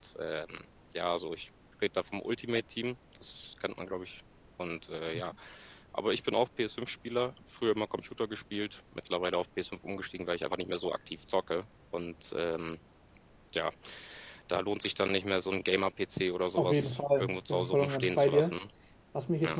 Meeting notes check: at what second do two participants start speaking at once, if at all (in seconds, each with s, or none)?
16.6 s